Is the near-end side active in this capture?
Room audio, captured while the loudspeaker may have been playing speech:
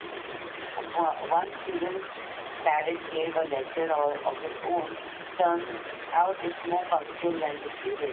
Yes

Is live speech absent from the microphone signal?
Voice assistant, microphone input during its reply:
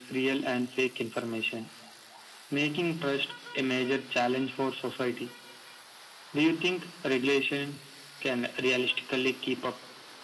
Yes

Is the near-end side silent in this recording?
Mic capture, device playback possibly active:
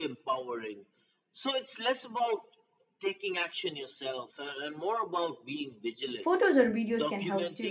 No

